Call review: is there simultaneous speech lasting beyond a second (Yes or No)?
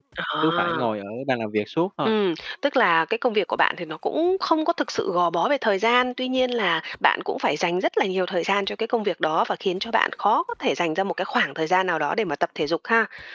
No